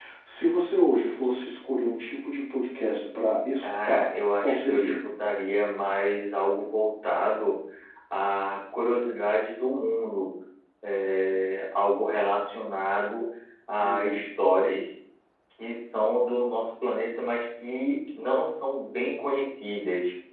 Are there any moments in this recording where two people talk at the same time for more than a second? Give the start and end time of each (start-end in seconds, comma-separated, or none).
3.6-4.9